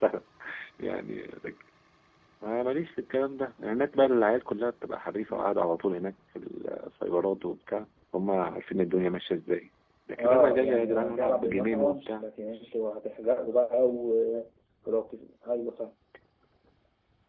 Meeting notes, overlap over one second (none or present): present